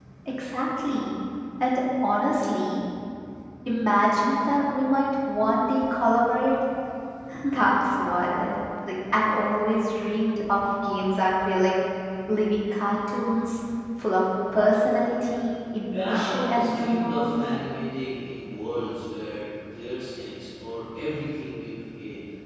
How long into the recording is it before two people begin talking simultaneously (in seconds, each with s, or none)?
15.9 s